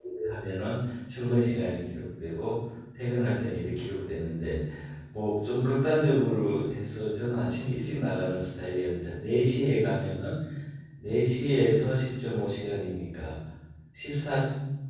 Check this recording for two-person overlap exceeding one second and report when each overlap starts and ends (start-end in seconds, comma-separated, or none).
none